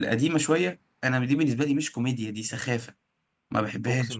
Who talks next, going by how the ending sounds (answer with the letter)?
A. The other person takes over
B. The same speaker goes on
A